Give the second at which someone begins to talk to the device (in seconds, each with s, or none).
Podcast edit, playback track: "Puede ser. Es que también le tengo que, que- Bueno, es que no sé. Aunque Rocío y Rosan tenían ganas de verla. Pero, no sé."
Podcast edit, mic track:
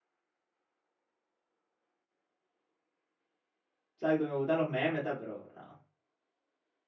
3.9 s